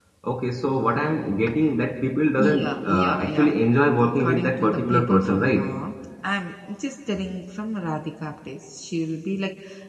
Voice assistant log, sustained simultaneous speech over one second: present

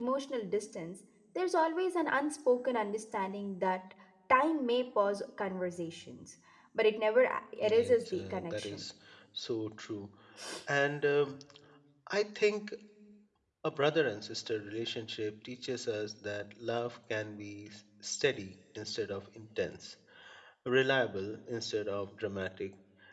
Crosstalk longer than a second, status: present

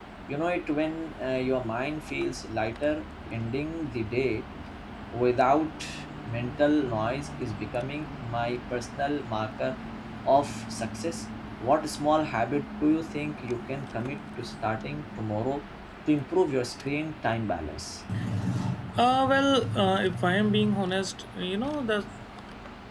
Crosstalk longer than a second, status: none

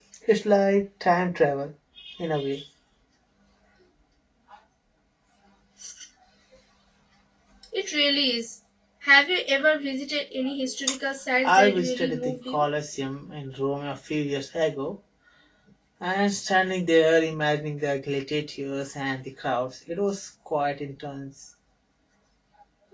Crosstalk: present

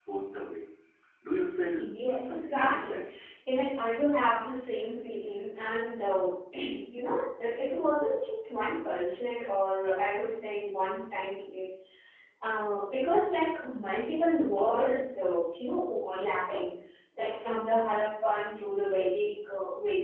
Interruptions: present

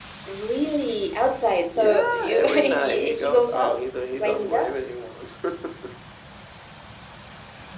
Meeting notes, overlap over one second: present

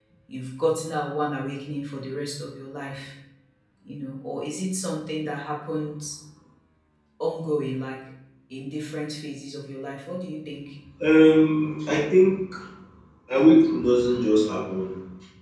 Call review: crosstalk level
none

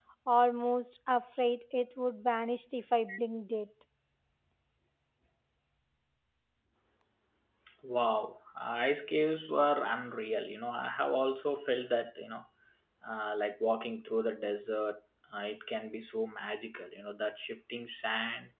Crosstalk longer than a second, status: none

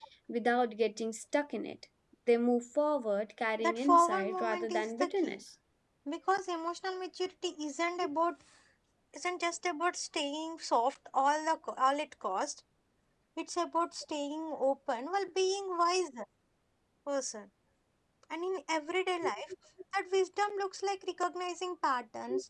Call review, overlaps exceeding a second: present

